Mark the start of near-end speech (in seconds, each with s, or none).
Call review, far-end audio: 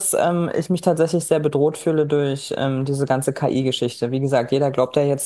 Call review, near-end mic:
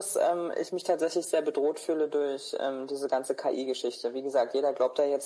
none